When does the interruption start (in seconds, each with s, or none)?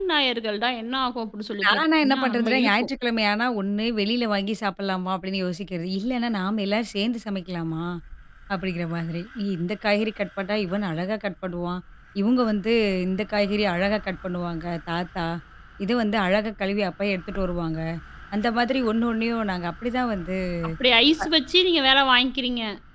1.6 s